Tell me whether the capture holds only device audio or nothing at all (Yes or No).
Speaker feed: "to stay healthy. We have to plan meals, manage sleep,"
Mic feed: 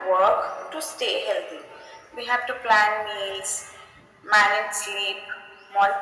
Yes